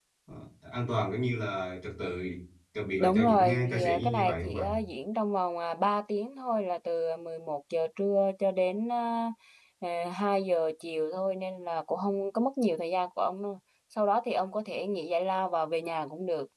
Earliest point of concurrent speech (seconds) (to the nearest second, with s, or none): 3 s